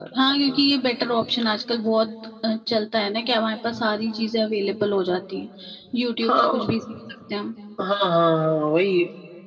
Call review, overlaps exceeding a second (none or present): none